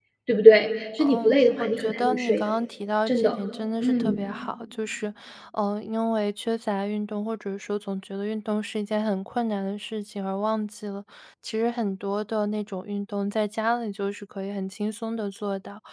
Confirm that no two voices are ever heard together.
No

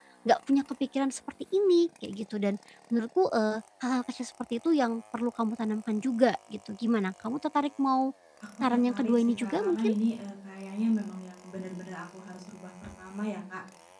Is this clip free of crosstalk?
No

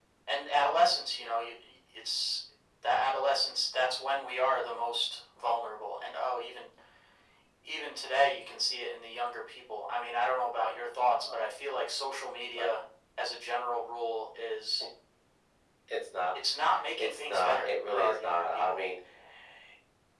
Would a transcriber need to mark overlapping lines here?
Yes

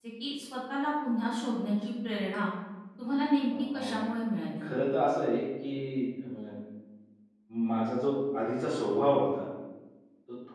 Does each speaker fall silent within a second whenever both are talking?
Yes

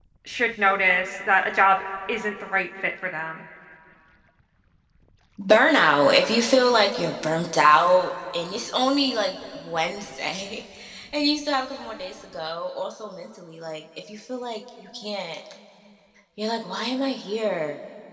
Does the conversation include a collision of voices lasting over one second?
No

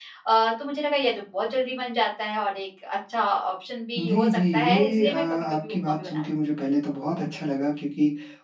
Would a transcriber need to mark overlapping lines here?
Yes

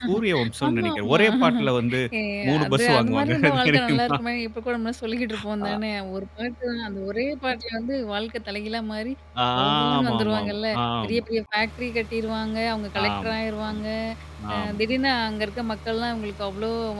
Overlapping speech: Yes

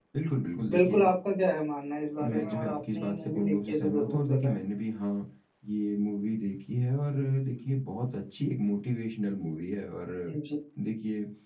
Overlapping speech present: Yes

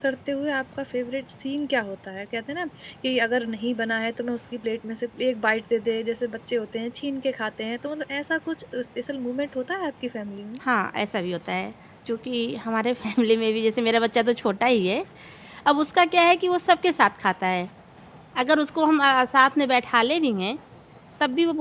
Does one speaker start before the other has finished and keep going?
No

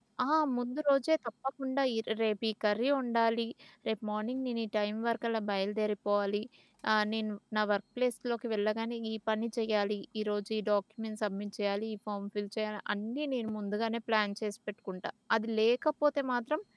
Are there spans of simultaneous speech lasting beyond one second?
No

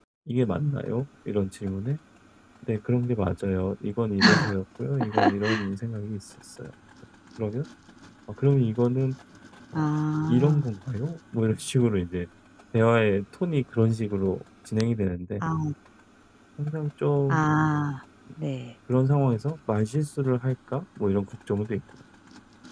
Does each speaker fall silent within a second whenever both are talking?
Yes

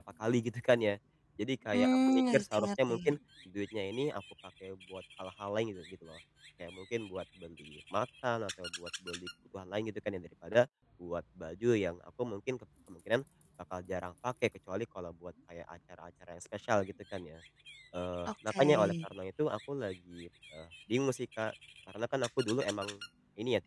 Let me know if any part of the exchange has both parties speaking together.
Yes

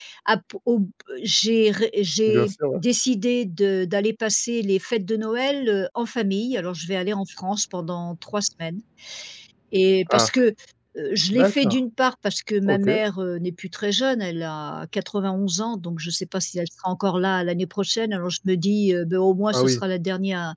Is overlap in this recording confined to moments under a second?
Yes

